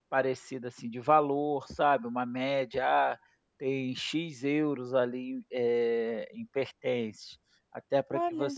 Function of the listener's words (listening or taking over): listening